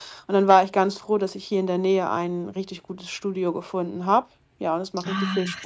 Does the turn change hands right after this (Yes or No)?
Yes